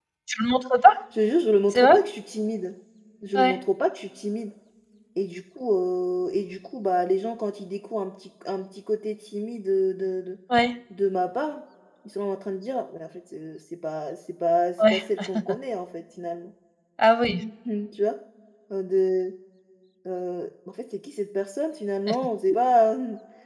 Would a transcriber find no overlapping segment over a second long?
Yes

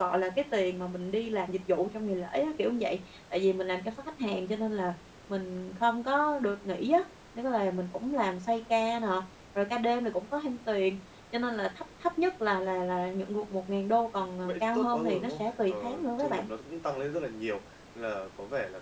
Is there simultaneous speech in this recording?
Yes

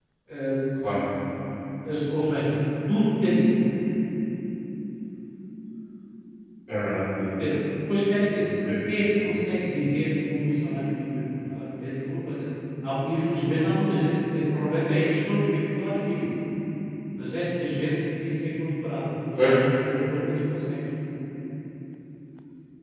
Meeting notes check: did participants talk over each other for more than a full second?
No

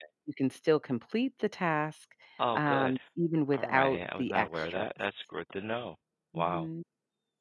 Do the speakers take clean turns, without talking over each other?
No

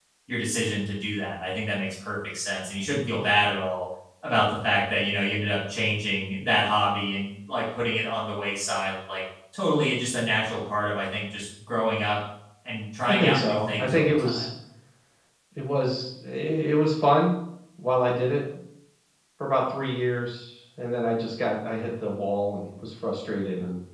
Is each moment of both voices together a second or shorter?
No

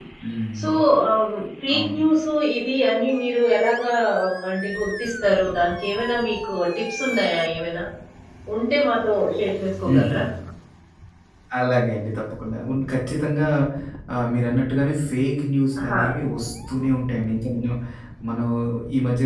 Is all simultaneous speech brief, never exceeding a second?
Yes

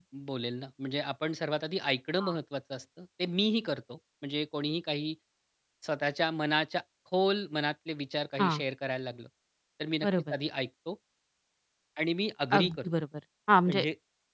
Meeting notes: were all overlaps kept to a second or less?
Yes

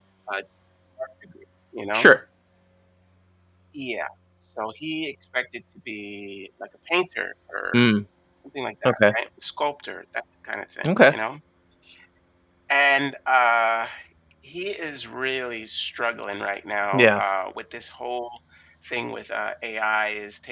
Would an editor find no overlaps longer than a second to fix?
Yes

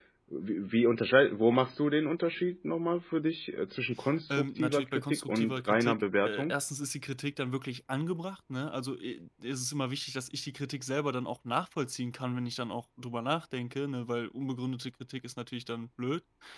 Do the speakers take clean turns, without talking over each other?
No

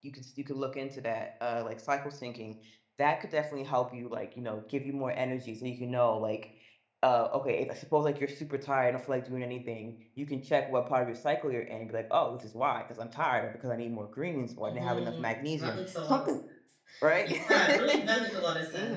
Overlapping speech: Yes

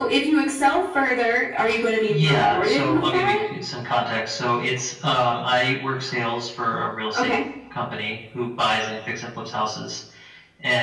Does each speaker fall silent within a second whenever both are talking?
No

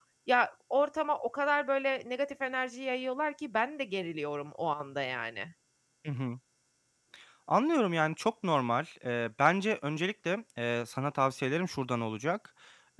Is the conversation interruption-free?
Yes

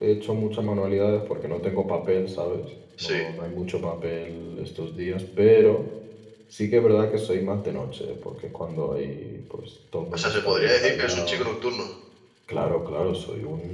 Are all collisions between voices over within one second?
No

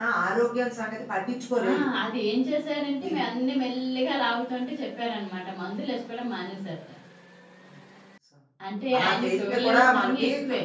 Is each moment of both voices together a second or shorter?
No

